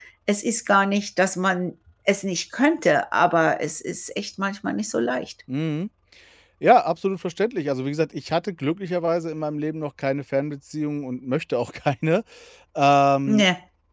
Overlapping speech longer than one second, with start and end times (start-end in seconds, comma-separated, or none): none